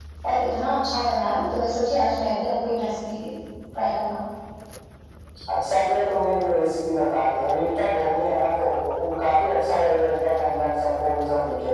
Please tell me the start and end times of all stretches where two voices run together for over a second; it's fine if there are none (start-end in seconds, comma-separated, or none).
none